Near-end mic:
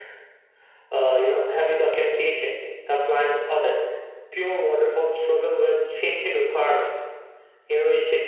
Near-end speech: none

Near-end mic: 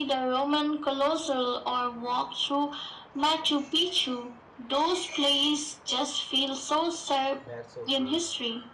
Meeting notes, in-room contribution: present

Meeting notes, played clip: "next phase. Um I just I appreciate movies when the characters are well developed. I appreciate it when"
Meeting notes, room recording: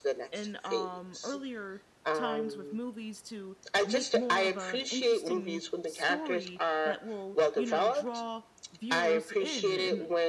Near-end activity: present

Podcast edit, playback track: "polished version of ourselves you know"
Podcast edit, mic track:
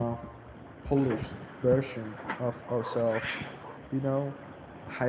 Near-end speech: none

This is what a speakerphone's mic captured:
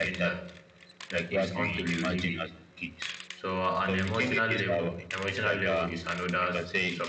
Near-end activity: present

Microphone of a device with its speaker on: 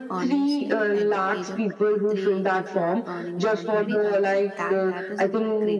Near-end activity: present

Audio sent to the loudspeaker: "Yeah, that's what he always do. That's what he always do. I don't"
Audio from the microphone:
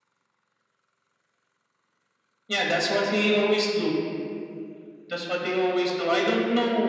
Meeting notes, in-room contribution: none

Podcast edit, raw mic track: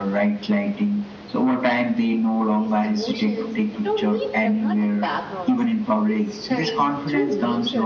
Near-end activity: present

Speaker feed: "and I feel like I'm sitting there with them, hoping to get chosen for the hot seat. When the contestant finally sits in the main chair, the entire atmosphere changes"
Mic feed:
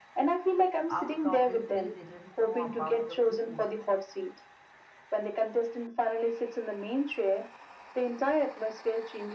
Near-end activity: present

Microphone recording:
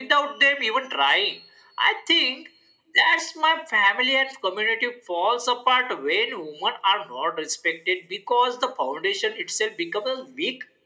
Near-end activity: none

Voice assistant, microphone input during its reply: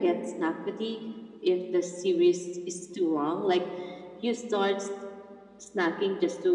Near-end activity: none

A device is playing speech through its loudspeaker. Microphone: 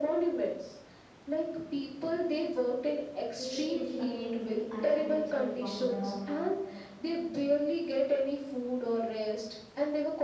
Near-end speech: present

